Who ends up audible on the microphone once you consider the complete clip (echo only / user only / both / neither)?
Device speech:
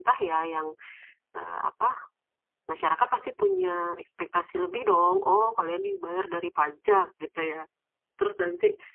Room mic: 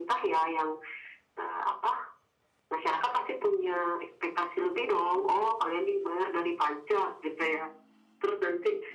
echo only